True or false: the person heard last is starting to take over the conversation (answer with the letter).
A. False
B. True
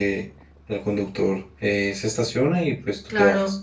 B